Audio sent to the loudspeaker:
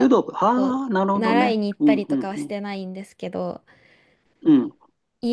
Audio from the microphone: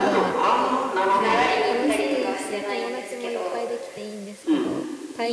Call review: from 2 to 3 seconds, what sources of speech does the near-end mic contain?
both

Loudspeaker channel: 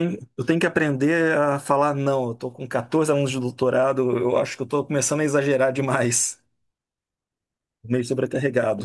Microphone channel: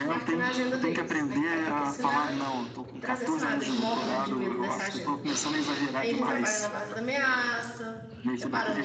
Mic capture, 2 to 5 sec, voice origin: both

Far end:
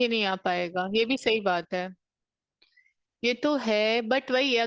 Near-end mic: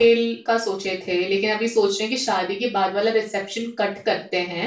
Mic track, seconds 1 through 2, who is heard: user only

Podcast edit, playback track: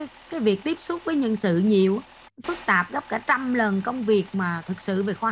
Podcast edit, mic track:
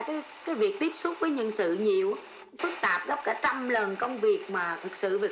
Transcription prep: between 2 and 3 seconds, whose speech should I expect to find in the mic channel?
echo only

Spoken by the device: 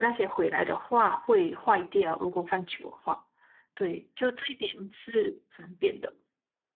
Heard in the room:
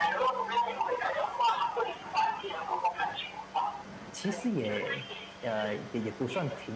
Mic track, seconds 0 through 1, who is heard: echo only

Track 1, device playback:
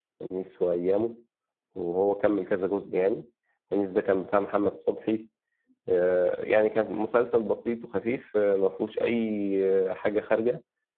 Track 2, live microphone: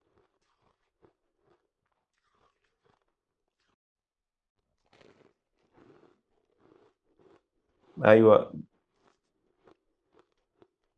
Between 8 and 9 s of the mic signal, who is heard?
user only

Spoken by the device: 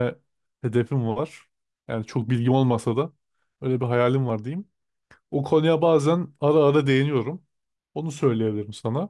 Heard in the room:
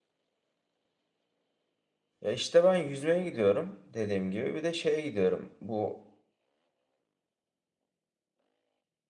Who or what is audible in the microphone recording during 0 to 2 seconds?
neither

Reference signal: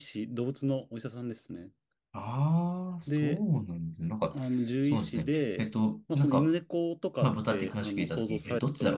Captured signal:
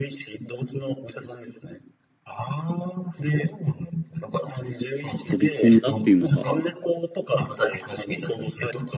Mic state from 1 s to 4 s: echo only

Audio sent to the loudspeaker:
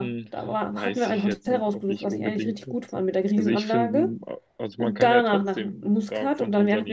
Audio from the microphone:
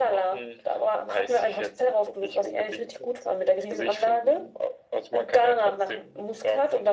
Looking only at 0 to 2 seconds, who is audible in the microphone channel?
echo only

